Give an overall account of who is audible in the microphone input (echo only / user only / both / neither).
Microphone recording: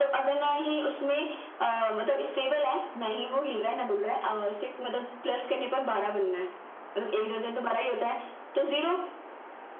echo only